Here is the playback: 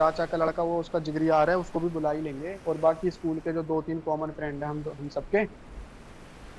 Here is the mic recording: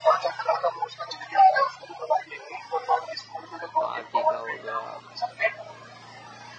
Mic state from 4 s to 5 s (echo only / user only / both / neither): both